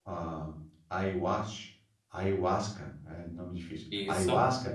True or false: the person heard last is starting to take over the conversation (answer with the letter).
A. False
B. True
A